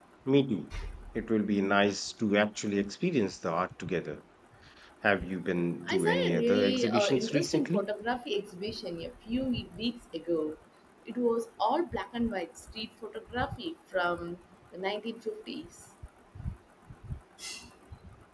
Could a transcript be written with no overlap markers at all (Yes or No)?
No